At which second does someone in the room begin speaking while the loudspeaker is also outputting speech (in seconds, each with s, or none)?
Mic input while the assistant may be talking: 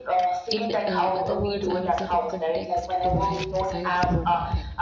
0.5 s